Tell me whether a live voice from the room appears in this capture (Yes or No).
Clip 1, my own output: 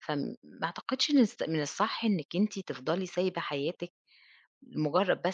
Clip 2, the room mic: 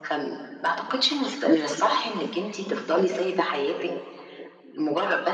No